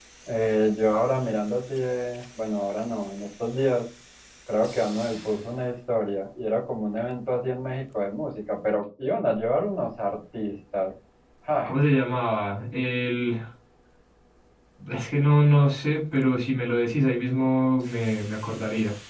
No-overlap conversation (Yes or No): Yes